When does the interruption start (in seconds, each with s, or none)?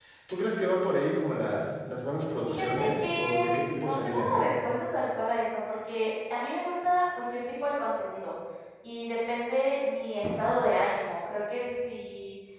2.5 s